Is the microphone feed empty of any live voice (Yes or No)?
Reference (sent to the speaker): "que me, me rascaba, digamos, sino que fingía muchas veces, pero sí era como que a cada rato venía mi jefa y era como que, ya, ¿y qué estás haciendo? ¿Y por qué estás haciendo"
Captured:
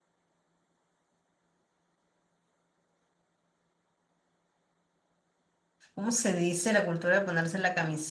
No